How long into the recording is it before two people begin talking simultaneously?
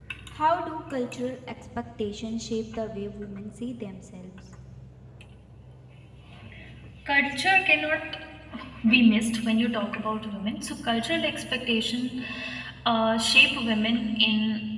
none

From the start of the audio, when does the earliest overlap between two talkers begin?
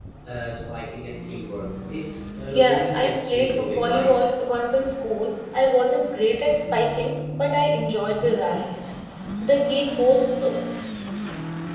2 s

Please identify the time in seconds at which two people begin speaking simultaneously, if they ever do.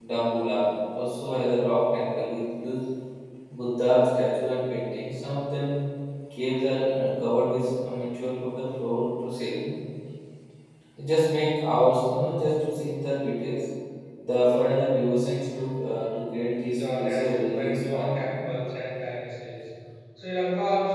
17 s

